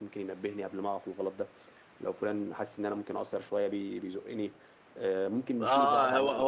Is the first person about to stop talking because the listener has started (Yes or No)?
Yes